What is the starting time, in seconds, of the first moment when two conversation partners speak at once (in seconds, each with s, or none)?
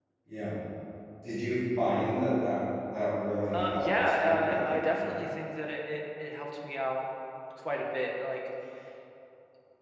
3.5 s